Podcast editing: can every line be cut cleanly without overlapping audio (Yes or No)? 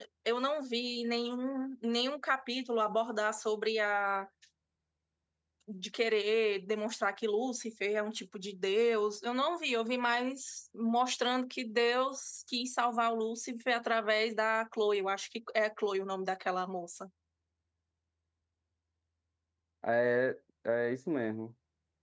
Yes